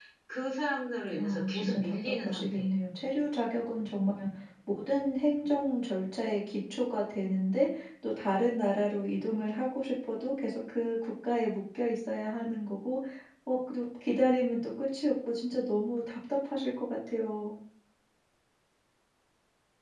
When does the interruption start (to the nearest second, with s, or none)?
1 s